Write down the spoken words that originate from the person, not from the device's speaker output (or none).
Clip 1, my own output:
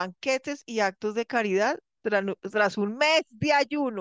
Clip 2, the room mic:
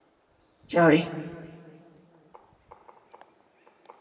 ya ve.